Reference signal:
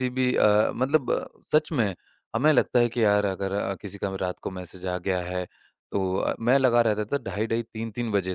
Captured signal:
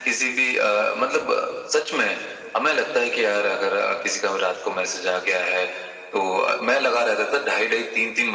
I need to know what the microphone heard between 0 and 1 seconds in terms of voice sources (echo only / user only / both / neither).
echo only